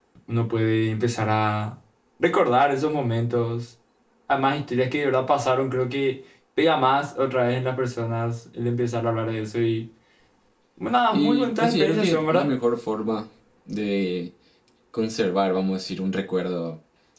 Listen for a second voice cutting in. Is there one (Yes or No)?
Yes